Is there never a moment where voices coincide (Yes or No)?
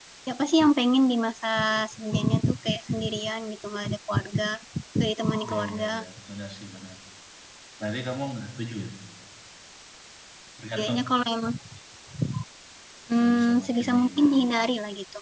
No